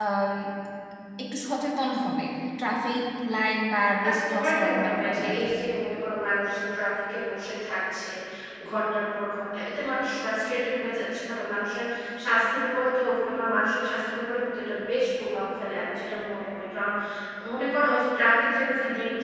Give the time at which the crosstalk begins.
4.0 s

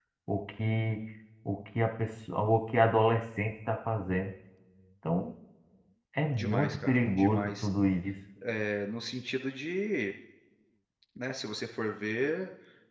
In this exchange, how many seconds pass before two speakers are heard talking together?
6.4 s

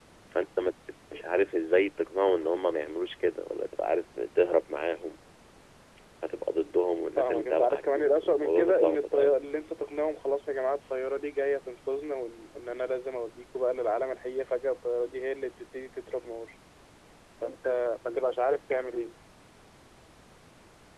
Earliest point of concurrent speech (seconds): 7.2 s

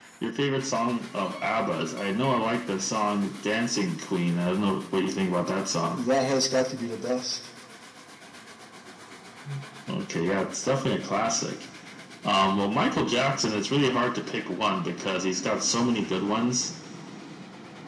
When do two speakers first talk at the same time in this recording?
none

